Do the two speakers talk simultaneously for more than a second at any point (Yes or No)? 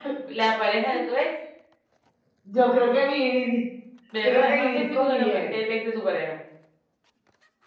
Yes